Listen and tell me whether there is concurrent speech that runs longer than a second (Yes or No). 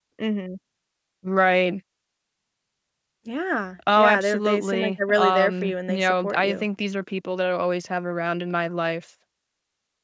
Yes